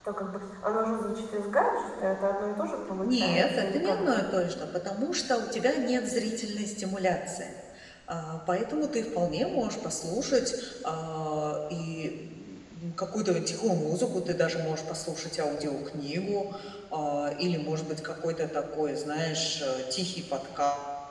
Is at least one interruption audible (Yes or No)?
Yes